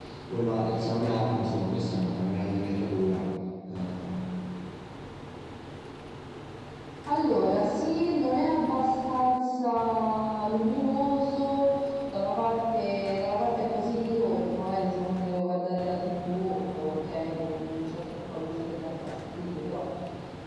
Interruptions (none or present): none